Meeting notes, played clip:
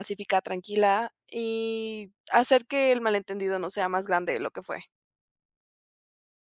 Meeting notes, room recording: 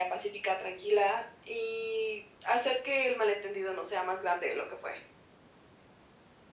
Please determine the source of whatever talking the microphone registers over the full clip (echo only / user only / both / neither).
echo only